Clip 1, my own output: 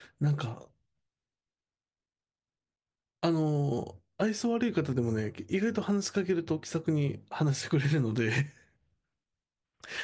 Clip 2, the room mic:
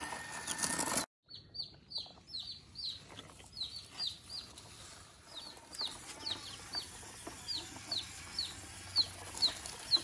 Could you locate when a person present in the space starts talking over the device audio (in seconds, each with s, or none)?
none